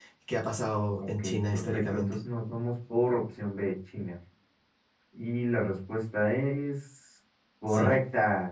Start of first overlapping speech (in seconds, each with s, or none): 1.0 s